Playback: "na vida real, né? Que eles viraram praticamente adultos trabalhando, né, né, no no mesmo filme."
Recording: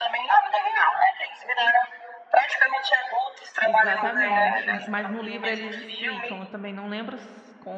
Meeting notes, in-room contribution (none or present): present